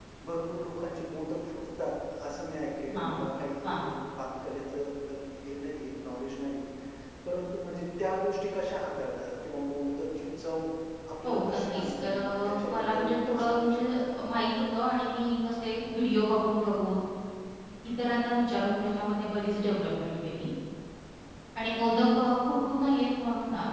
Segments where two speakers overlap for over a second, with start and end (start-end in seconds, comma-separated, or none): 11.2-14.0